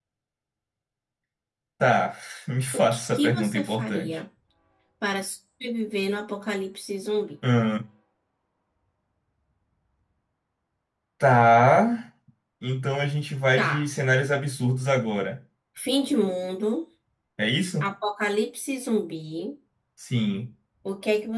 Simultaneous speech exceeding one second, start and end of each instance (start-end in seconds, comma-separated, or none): 2.7-4.2